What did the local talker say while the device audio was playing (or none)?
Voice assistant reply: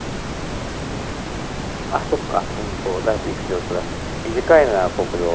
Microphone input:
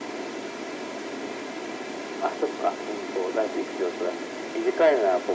none